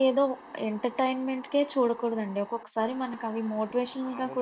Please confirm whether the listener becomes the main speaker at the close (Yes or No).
Yes